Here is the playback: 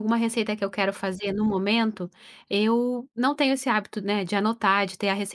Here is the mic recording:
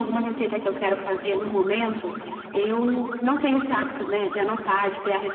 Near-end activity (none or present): none